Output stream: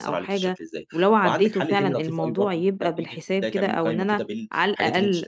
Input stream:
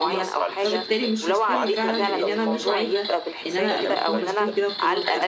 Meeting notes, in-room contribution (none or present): present